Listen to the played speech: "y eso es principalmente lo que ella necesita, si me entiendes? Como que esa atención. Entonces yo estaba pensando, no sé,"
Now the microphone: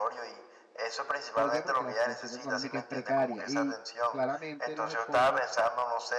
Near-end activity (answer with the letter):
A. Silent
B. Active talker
B